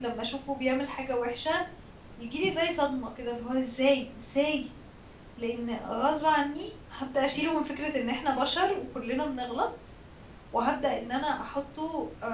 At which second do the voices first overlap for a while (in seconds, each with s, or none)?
none